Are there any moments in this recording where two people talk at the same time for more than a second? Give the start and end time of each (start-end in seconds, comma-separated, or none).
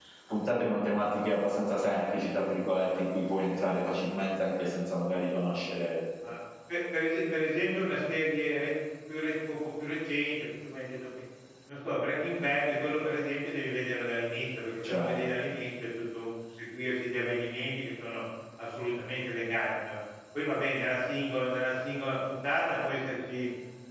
none